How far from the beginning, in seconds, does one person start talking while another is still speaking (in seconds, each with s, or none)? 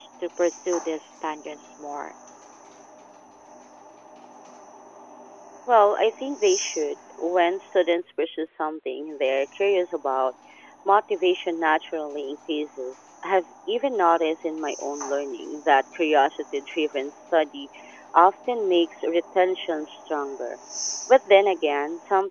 none